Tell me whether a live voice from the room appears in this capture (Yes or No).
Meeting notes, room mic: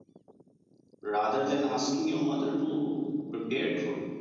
Yes